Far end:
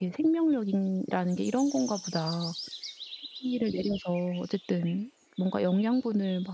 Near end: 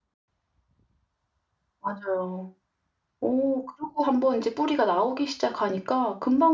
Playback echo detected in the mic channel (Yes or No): No